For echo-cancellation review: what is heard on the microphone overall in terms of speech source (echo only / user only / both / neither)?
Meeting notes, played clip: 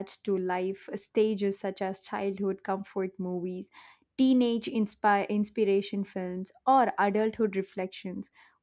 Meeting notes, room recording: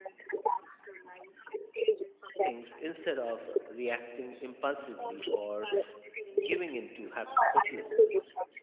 both